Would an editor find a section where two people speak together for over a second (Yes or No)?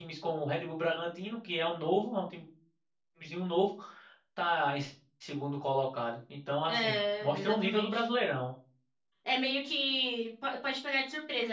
Yes